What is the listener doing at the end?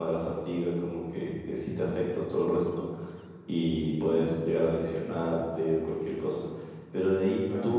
listening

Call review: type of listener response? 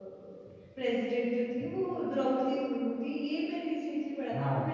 listening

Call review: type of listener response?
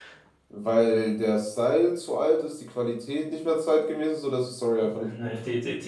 taking over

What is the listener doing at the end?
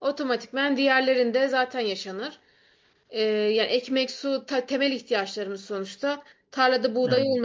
listening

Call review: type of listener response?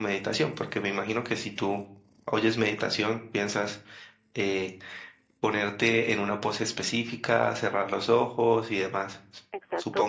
taking over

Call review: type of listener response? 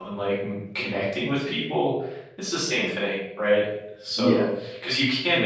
listening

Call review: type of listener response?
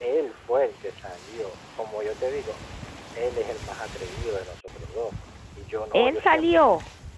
listening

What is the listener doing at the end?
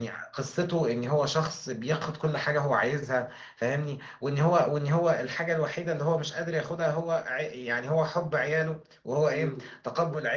listening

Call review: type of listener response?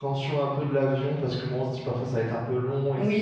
taking over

